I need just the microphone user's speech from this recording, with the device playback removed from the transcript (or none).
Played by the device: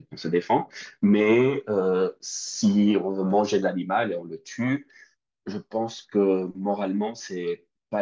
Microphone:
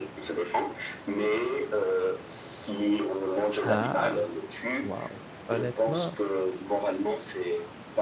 Ah, wow. Honnêtement,